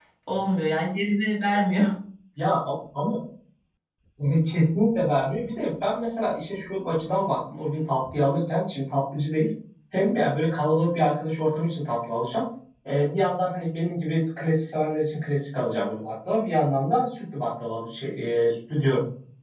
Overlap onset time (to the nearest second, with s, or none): none